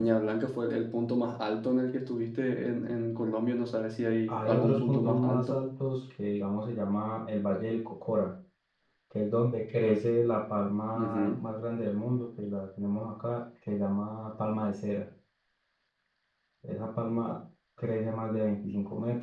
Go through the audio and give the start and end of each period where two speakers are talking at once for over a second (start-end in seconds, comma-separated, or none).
4.3-5.6